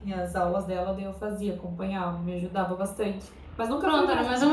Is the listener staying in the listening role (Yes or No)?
No